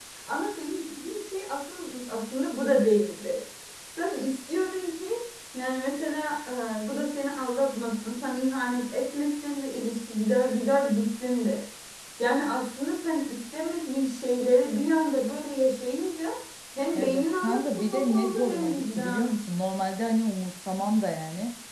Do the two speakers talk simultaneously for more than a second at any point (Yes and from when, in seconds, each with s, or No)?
Yes, from 17.0 s